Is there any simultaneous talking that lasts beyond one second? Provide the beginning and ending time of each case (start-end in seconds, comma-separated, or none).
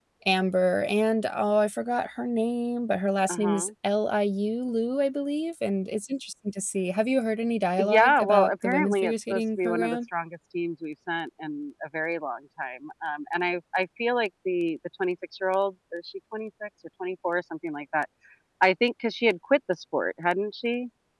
7.8-10.0